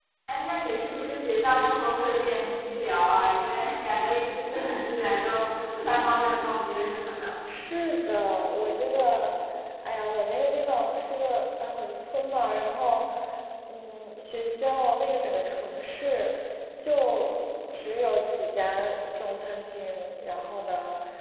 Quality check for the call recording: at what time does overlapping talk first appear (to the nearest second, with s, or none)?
none